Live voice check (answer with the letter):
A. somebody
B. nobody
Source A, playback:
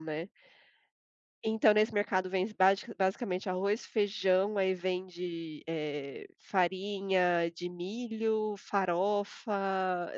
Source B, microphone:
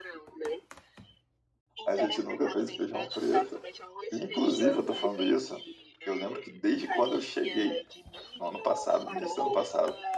A